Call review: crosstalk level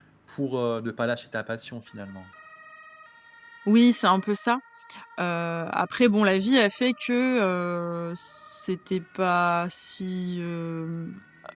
none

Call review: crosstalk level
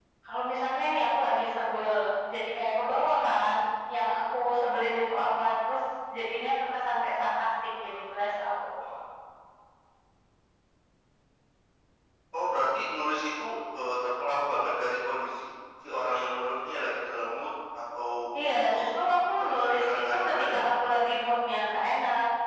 present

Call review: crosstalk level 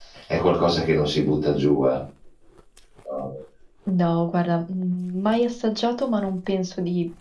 none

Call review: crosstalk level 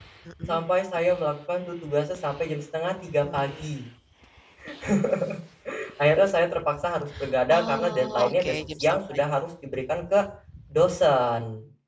present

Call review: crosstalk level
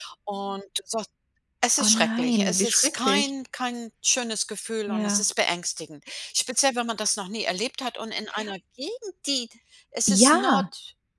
present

